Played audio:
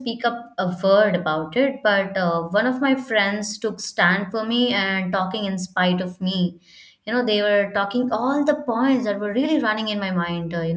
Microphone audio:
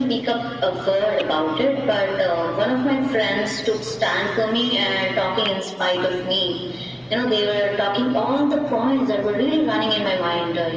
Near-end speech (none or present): none